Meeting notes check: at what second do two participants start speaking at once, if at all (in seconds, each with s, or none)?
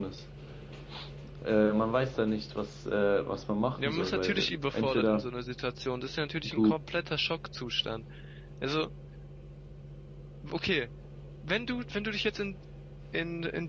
3.7 s